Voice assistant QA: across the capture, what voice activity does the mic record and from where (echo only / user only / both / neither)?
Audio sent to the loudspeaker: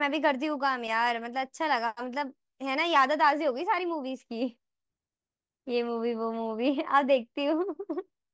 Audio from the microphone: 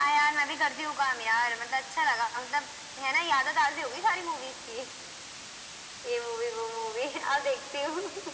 echo only